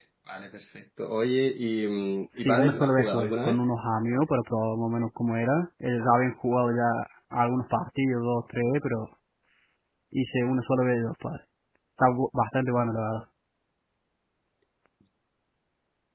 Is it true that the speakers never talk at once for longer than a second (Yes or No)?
No